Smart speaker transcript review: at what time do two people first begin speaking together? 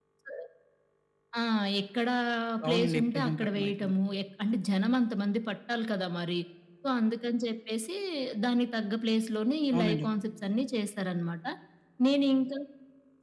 2.7 s

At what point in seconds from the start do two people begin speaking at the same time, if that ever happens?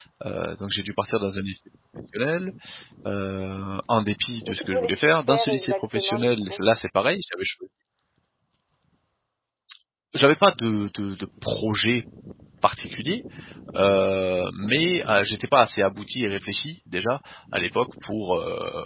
4.4 s

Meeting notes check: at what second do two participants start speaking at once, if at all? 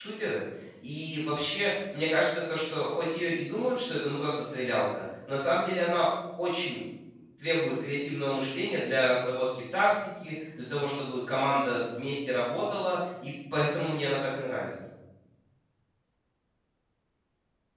none

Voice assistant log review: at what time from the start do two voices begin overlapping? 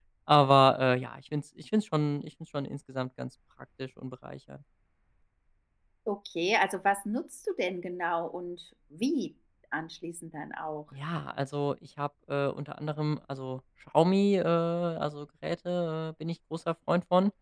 none

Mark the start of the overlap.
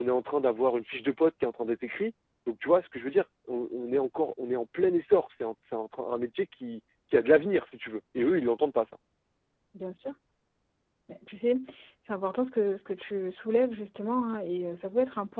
none

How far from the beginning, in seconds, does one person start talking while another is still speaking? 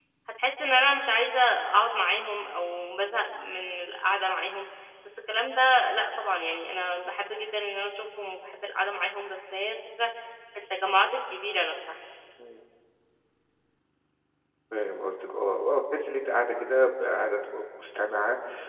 none

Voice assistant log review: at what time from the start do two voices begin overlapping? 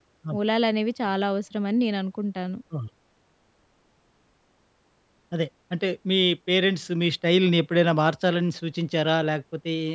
none

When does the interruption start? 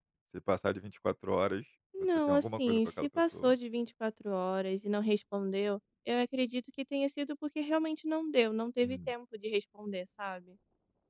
2.0 s

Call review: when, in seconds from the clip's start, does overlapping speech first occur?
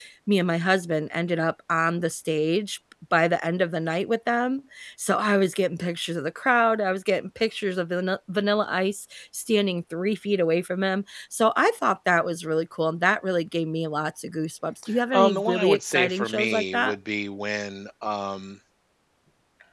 15.1 s

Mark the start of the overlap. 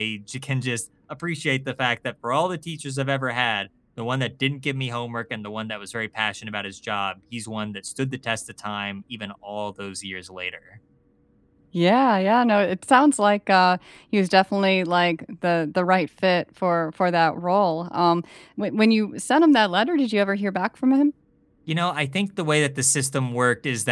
none

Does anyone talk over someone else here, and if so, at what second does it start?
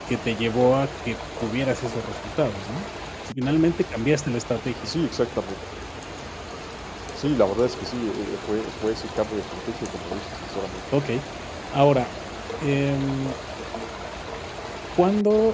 none

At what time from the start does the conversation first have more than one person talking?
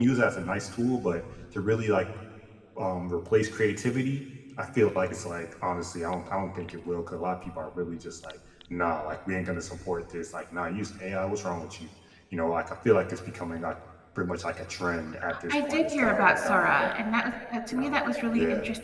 15.5 s

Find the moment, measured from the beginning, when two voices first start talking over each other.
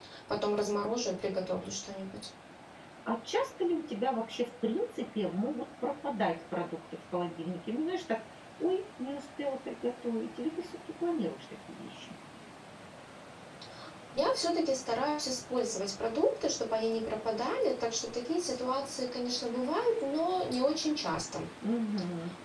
none

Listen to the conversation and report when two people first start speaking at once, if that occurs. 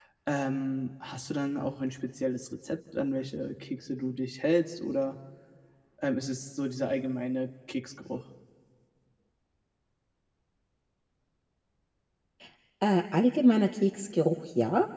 none

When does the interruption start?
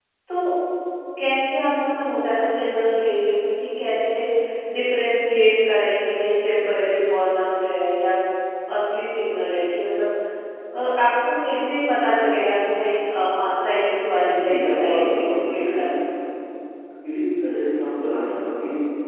14.2 s

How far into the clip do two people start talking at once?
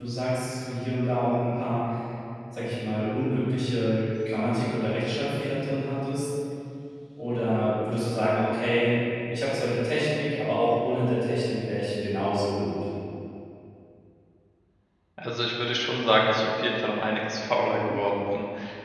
none

